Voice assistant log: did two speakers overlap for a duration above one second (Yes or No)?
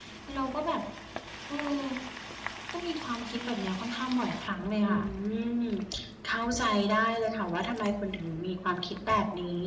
No